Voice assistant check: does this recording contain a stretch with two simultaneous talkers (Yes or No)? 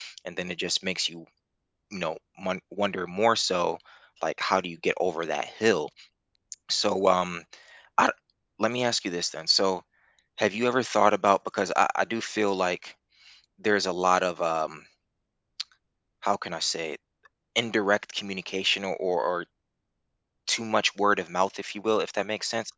No